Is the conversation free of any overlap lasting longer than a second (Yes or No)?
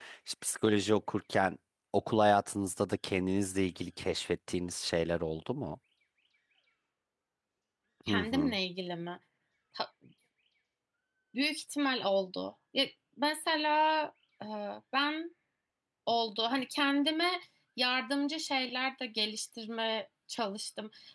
Yes